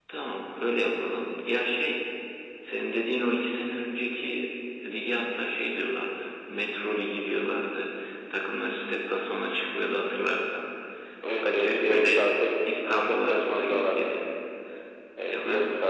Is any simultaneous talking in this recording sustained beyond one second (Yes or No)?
Yes